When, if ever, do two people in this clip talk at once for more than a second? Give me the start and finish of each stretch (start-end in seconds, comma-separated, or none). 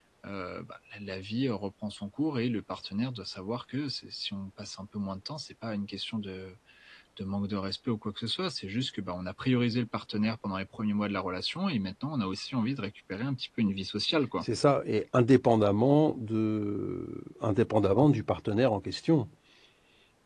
none